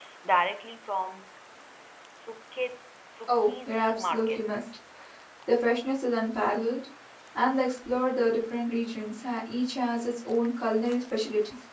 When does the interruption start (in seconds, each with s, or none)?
3.3 s